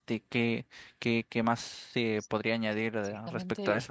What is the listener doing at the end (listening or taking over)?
taking over